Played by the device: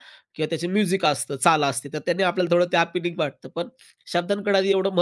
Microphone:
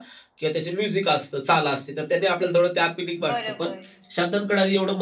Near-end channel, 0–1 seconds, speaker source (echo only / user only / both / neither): echo only